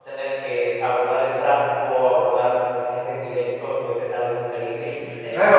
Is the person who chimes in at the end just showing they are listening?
No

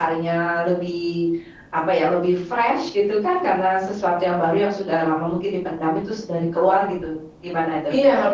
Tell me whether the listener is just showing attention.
No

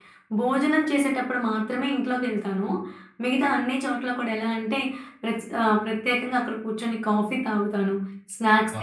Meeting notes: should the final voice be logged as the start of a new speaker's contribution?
No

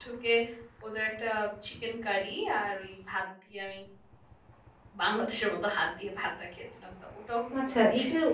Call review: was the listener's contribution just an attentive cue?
No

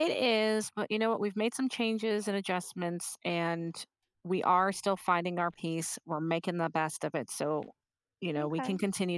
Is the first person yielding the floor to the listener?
Yes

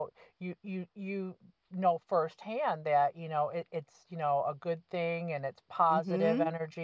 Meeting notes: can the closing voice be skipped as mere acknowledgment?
No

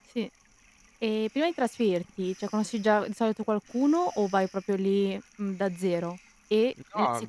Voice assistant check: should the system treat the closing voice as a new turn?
No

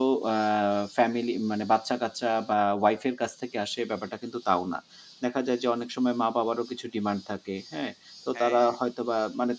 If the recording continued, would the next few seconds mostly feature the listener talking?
No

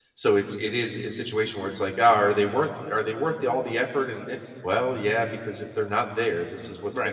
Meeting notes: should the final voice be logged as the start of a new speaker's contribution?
Yes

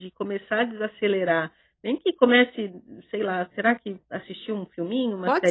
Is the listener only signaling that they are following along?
No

